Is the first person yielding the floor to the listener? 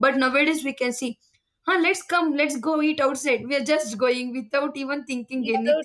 Yes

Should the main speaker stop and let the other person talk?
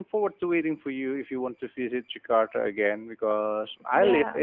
No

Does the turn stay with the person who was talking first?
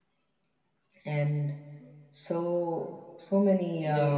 No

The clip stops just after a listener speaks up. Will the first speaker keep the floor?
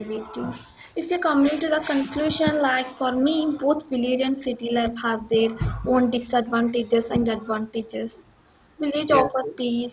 Yes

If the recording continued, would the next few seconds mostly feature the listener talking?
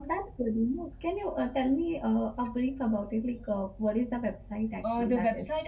Yes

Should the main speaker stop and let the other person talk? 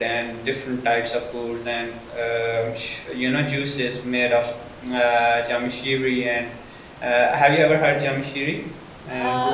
Yes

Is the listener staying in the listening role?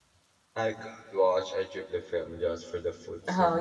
No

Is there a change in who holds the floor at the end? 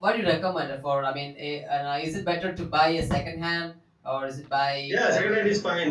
Yes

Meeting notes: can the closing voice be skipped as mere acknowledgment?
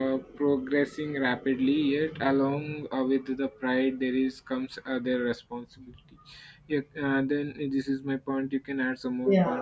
No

